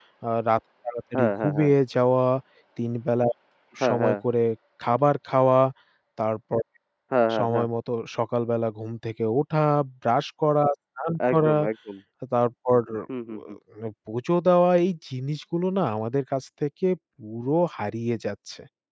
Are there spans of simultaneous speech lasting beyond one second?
No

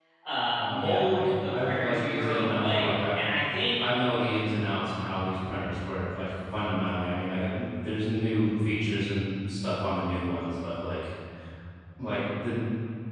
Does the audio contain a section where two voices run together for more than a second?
Yes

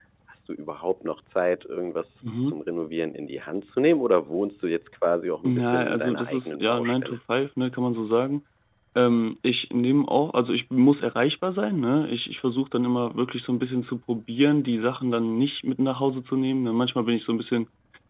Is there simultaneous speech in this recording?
Yes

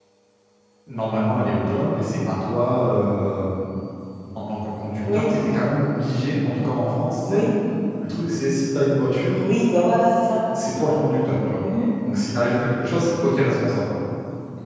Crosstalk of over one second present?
No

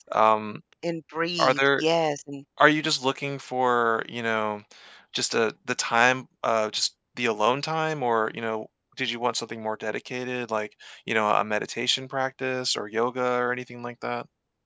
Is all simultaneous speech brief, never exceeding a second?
Yes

